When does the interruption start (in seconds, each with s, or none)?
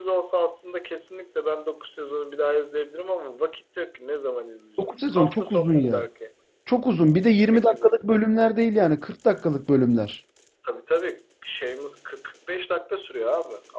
4.8 s